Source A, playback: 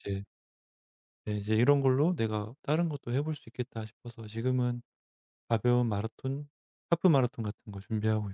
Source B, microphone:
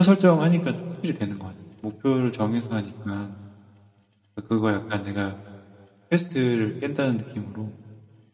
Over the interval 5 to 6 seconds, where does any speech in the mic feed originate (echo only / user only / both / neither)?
user only